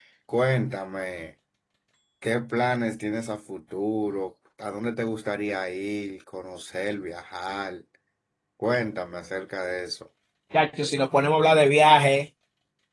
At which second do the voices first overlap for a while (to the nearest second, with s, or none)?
none